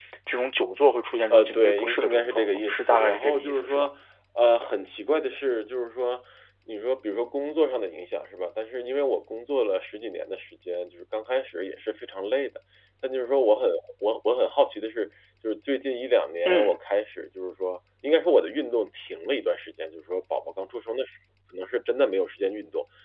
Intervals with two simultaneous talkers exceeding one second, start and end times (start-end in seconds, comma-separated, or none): 1.3-3.9